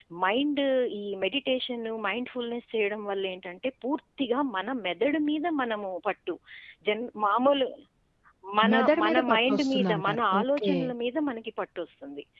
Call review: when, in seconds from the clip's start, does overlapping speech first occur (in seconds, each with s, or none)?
8.7 s